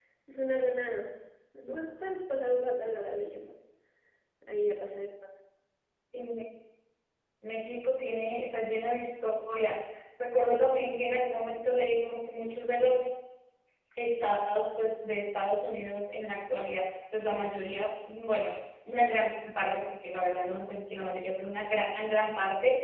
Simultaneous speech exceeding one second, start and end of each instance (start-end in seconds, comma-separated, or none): none